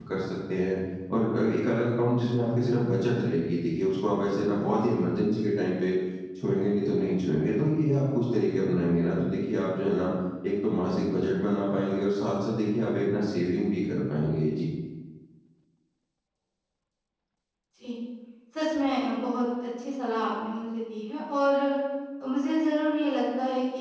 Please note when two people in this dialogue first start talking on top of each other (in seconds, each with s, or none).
none